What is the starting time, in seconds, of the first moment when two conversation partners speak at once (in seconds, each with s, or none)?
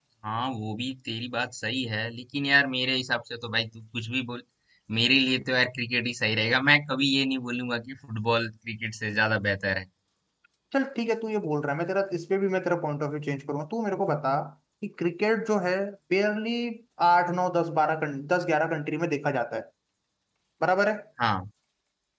none